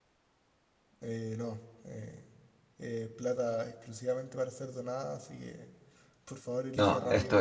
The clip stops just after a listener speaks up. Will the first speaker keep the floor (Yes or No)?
No